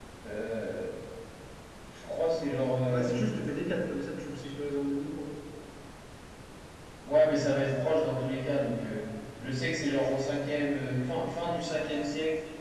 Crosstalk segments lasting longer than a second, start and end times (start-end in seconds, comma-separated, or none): none